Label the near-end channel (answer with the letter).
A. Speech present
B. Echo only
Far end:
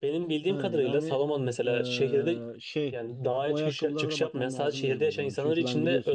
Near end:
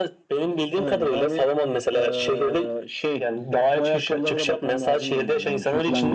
B